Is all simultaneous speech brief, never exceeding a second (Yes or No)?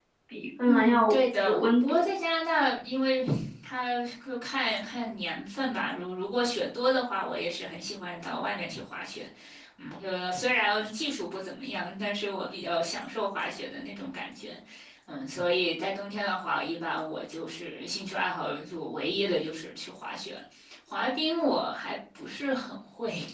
No